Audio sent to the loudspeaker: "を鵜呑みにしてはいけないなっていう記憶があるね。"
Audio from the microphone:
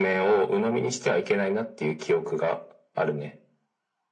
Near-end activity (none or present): none